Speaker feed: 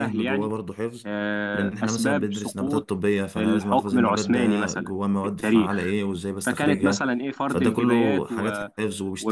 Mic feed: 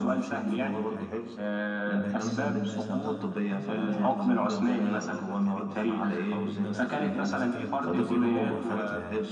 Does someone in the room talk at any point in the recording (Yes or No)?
Yes